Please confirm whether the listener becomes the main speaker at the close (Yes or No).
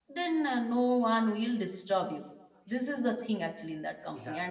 Yes